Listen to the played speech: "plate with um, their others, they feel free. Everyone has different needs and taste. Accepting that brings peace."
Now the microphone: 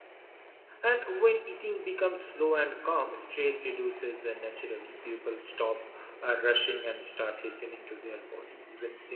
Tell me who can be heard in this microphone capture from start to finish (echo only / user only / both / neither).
user only